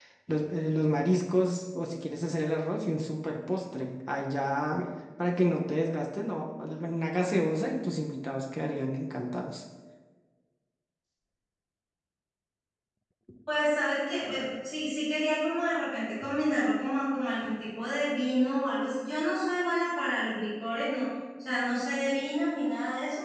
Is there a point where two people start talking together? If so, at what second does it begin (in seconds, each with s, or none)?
none